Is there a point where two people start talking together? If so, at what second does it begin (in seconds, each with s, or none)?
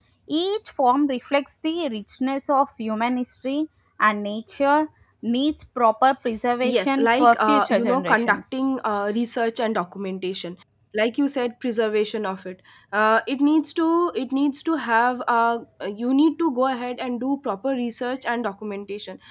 6.6 s